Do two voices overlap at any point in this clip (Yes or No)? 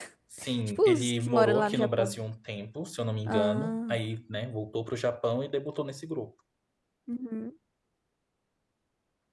Yes